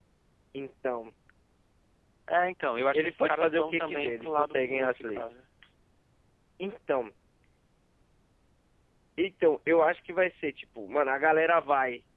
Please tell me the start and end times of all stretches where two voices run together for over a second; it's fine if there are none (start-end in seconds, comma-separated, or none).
2.9-5.4